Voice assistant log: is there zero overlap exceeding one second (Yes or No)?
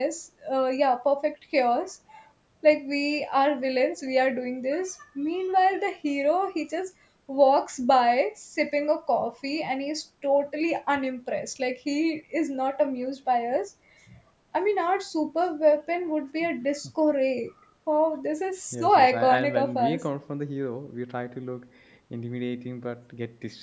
No